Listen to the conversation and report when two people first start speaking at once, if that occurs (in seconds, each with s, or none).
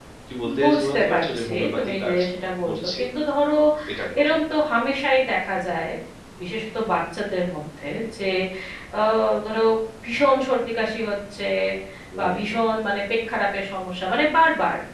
0.6 s